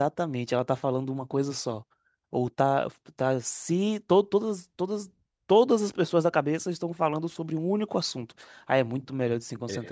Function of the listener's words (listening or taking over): taking over